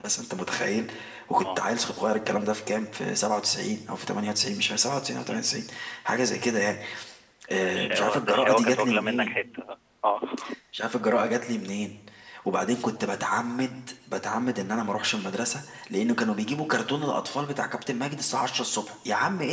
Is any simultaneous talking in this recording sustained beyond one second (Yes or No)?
Yes